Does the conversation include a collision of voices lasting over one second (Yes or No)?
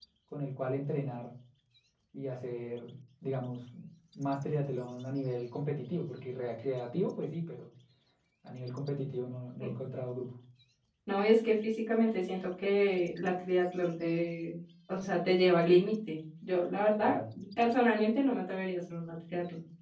No